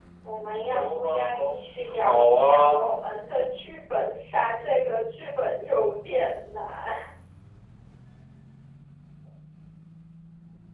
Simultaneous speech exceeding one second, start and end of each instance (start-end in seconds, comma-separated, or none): 0.5-2.9